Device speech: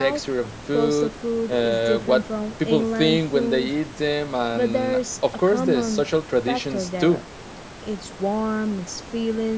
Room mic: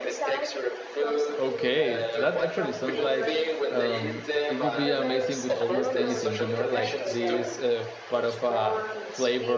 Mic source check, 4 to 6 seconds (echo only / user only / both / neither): both